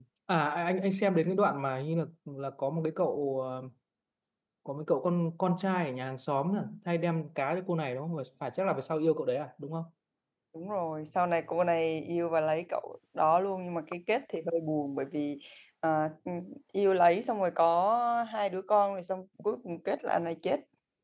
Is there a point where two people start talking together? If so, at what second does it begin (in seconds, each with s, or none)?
none